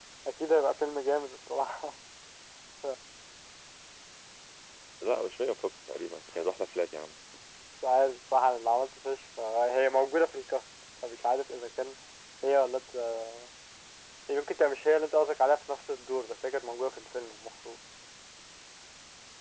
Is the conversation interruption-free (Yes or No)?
Yes